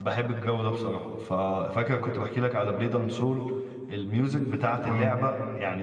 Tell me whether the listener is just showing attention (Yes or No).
Yes